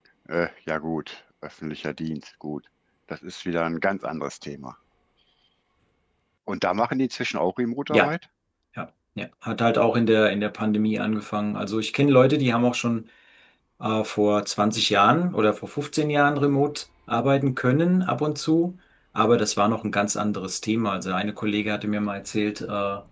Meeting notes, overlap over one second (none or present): none